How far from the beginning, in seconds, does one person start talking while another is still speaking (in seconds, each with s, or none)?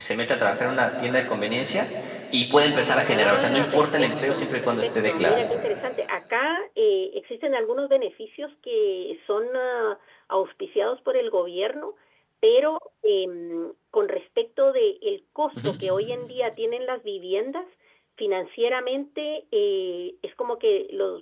3.0 s